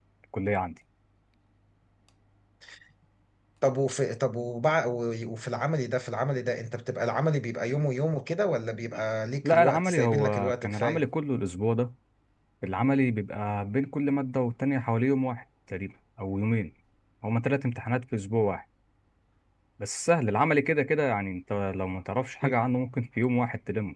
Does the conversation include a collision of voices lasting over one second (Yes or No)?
Yes